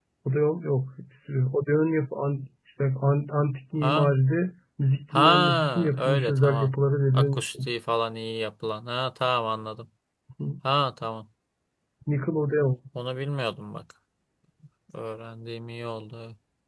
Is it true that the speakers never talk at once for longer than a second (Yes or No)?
No